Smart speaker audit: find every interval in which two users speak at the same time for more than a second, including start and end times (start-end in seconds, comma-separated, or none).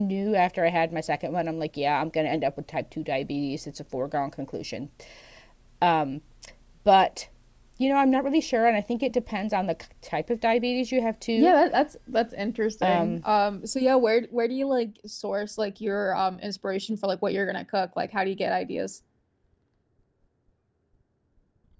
none